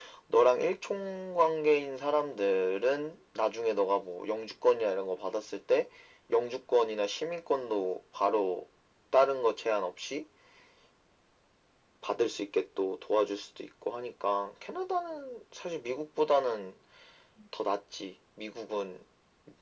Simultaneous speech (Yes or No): No